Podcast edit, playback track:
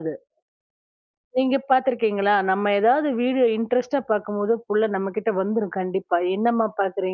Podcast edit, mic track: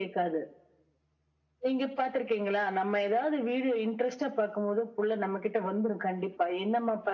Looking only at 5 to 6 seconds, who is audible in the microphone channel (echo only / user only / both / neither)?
echo only